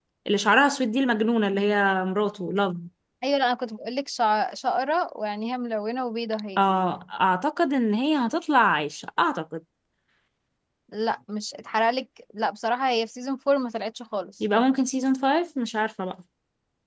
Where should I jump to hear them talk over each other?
none

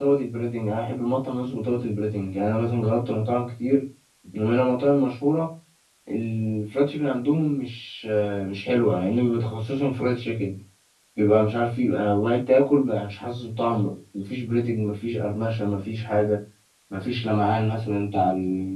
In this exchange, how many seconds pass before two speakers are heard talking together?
none

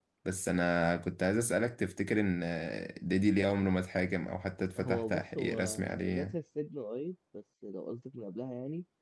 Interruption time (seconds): 4.8 s

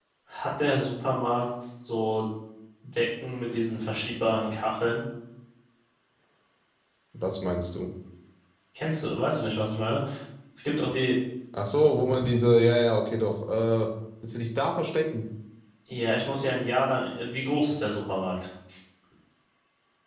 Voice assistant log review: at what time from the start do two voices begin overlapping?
none

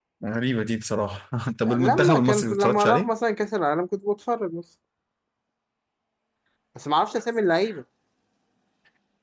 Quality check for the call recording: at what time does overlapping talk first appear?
1.7 s

